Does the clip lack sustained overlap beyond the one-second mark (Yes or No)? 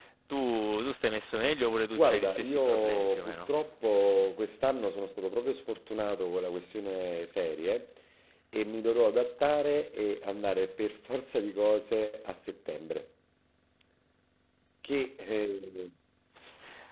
No